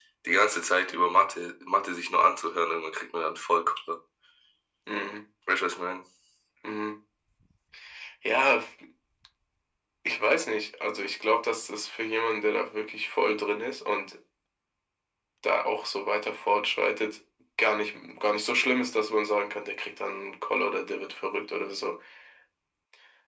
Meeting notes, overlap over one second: none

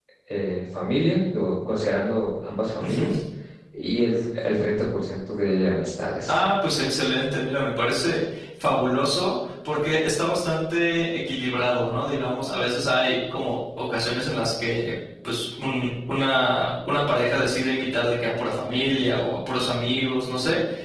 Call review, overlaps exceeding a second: none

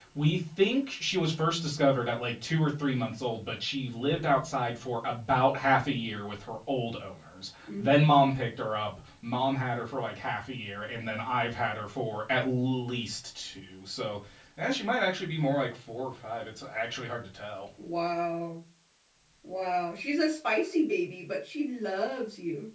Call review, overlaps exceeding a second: none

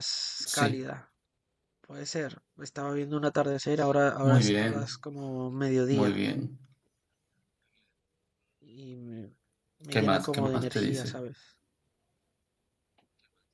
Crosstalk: present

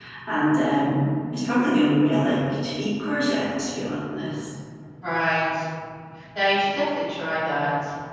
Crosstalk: none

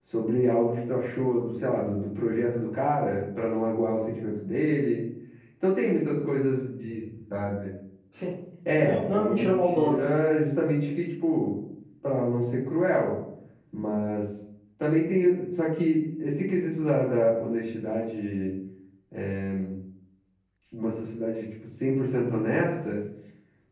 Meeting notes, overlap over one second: present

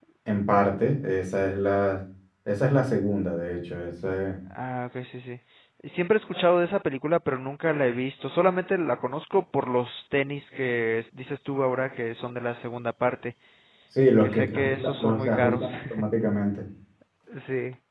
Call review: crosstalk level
present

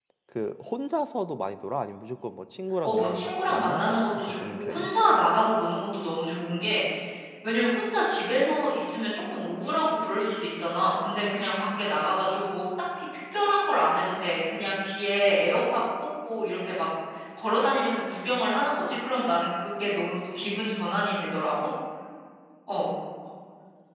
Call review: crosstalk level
present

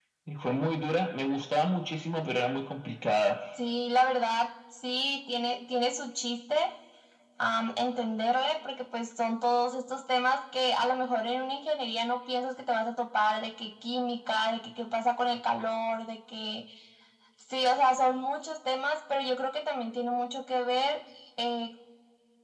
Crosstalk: none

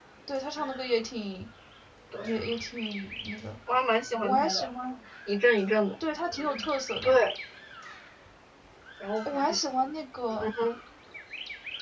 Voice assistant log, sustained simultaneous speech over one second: none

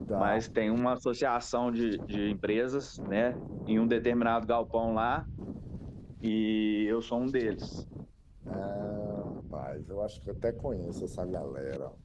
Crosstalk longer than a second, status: none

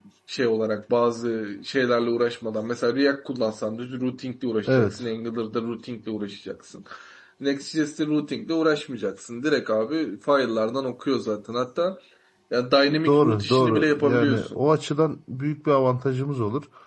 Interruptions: present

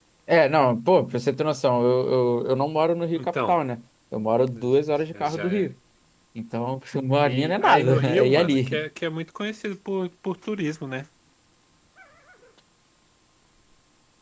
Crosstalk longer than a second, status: present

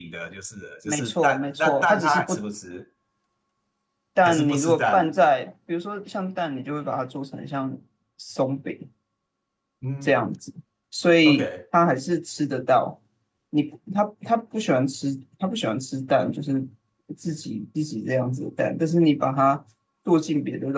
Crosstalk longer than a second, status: present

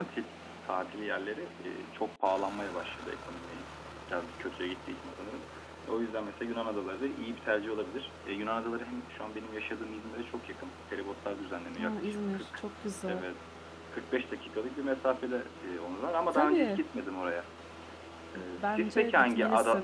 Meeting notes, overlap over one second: present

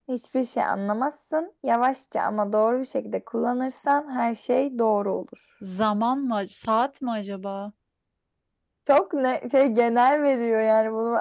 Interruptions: none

